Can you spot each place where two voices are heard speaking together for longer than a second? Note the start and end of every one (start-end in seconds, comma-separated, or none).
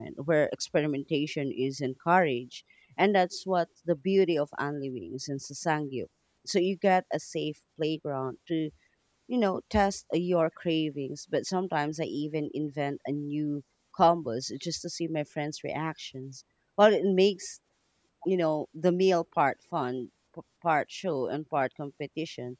none